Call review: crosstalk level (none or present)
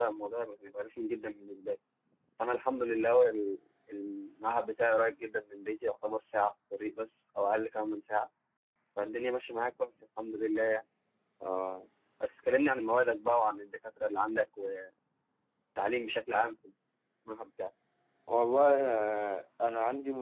none